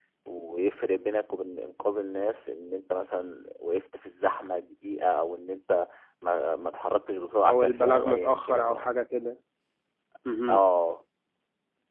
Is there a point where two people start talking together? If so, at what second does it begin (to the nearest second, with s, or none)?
7 s